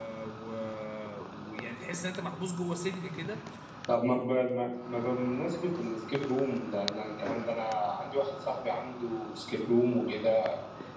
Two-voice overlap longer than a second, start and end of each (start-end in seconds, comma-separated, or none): none